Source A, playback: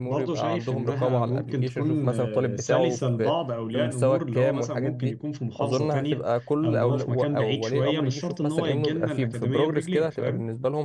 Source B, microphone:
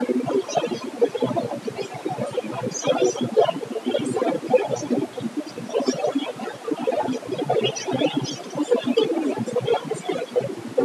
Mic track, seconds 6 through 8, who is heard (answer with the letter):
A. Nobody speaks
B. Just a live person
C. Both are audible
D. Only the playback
D